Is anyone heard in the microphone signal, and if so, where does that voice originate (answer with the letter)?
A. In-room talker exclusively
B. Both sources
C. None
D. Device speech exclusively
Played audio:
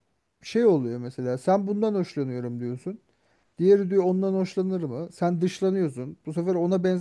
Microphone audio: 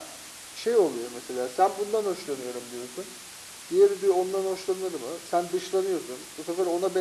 D